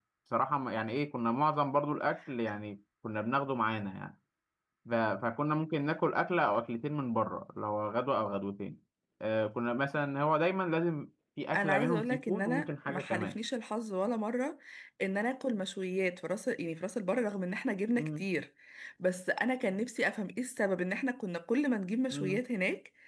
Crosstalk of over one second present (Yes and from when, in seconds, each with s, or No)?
Yes, from 11.5 s